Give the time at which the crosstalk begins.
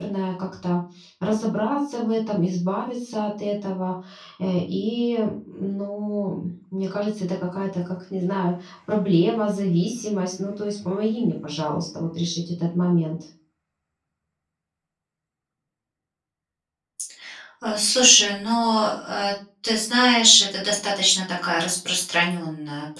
none

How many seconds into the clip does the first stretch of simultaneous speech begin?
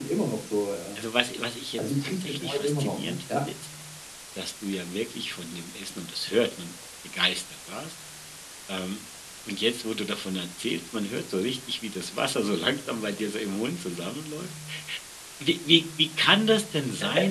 1.8 s

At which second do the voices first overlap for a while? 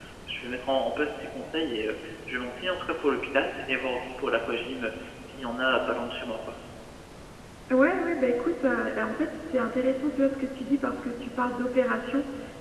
none

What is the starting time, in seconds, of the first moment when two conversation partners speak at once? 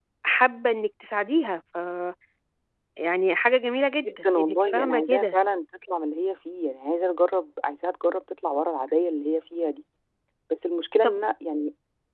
4.1 s

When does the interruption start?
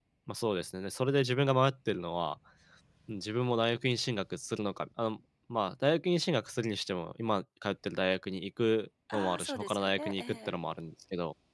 9.1 s

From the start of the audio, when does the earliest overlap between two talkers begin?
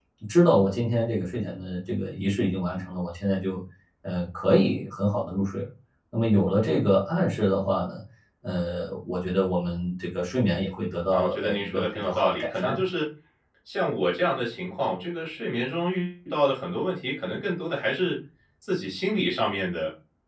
11.1 s

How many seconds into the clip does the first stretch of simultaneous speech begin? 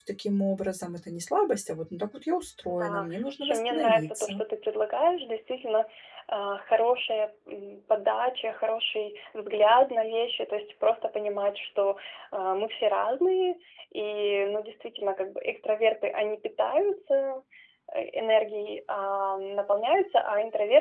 2.7 s

